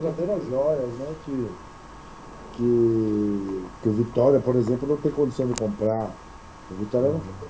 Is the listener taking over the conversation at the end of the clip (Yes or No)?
No